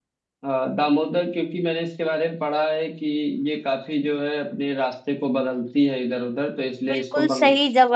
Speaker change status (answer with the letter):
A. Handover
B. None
A